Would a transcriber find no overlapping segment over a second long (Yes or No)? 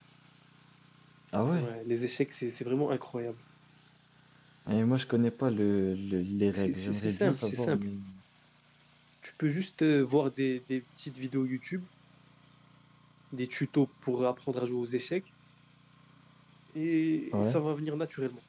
No